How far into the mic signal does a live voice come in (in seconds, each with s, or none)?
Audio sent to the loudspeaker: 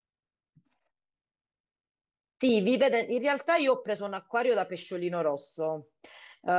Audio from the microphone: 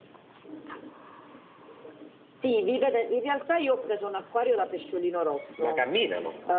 5.6 s